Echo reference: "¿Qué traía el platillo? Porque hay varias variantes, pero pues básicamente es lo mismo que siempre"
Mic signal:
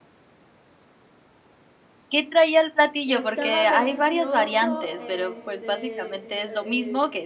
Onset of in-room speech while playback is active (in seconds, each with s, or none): 3.1 s